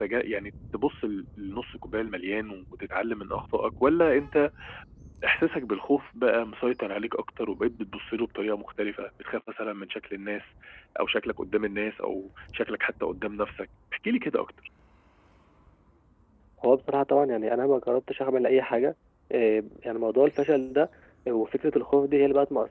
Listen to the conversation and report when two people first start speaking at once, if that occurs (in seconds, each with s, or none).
none